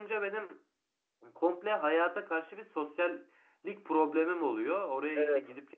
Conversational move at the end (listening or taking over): listening